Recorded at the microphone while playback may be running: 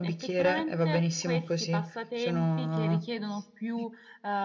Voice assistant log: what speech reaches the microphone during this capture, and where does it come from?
echo only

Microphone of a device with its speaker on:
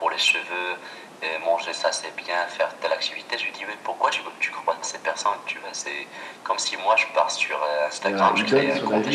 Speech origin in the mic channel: both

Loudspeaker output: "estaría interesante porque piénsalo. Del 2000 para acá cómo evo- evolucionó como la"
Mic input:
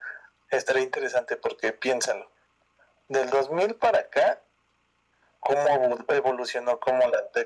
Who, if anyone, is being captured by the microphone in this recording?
echo only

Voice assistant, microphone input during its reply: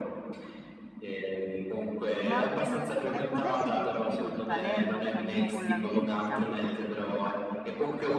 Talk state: both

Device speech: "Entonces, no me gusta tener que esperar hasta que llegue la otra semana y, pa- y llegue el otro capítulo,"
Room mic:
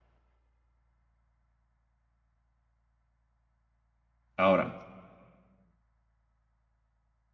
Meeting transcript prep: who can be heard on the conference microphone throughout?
user only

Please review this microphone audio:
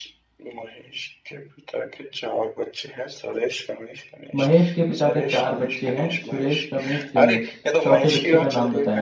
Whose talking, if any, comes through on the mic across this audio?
both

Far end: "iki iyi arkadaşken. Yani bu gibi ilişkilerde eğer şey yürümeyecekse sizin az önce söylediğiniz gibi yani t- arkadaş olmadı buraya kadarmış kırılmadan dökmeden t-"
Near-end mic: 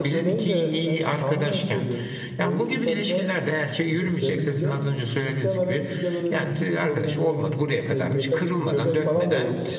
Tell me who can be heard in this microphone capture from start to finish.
both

